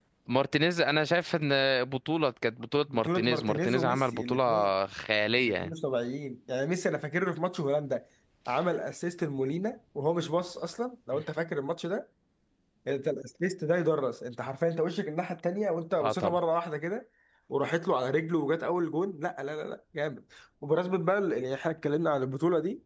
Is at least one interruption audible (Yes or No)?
Yes